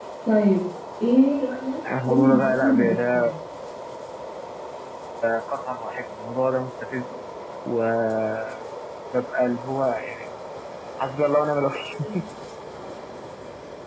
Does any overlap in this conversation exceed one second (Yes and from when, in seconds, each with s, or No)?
Yes, from 1.9 s